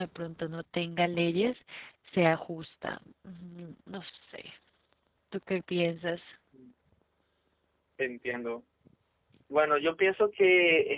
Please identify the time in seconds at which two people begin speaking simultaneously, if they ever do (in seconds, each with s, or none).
none